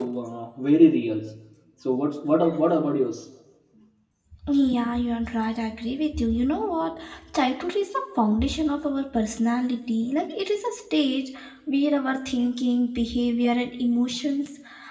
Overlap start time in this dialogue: none

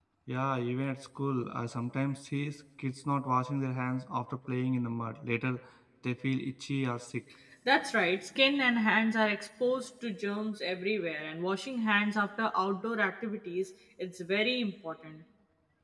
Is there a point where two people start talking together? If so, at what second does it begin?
none

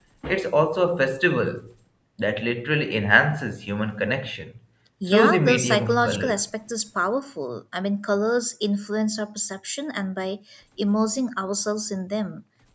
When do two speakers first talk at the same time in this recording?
5 s

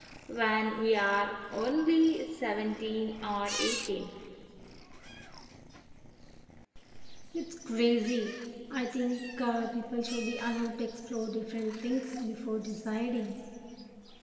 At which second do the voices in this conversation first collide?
none

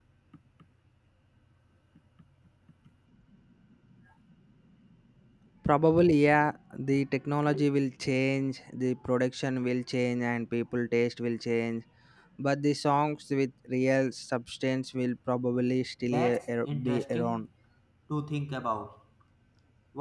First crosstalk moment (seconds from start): 16 s

